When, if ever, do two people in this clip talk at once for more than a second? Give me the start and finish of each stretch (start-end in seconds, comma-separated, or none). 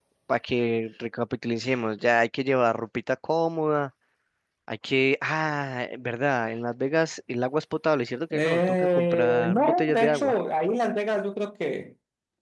8.3-10.3